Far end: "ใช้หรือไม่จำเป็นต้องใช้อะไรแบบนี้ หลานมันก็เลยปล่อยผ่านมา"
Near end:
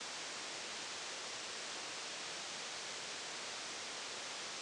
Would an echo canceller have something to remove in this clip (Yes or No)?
No